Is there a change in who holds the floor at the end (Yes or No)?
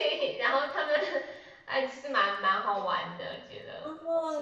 Yes